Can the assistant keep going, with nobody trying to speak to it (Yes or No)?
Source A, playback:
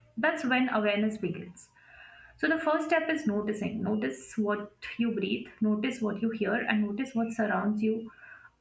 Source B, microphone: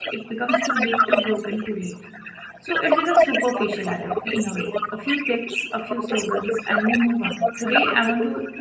No